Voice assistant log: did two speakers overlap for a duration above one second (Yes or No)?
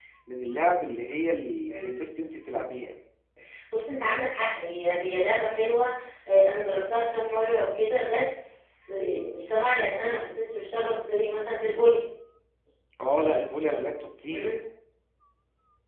No